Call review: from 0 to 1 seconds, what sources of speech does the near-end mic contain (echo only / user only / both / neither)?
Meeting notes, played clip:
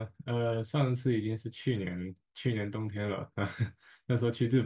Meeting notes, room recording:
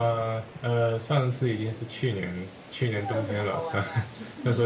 echo only